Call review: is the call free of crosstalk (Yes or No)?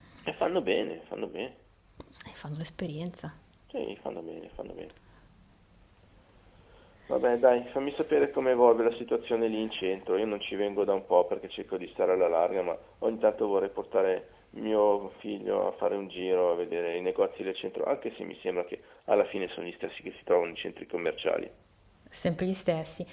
Yes